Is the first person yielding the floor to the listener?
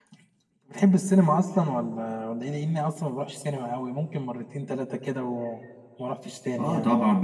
Yes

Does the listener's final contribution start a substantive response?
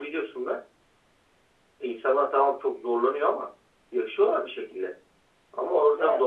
No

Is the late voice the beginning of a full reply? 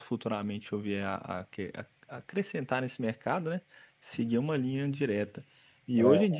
No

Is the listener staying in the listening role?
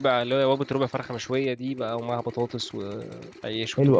No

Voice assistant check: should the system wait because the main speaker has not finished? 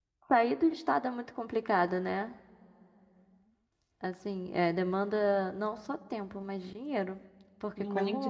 No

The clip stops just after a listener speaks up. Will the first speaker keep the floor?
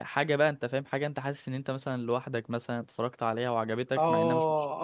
No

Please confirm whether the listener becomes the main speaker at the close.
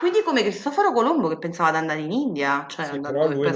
Yes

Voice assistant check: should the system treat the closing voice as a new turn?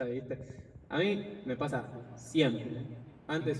No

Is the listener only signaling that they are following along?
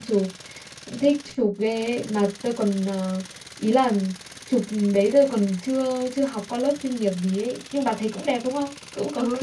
No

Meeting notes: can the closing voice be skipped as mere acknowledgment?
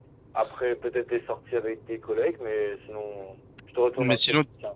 No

